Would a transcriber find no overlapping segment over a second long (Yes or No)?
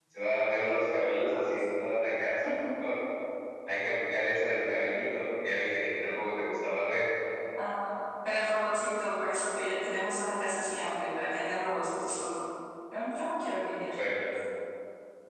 Yes